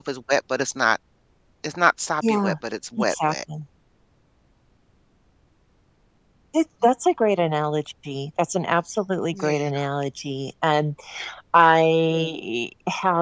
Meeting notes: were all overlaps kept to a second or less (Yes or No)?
Yes